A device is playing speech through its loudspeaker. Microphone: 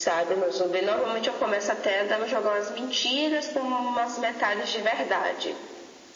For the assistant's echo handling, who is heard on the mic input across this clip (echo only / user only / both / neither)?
echo only